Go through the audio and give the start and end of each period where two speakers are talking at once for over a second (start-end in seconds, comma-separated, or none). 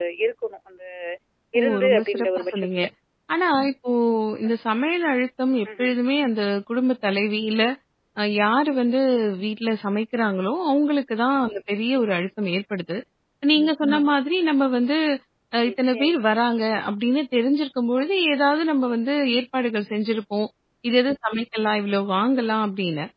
1.6-2.8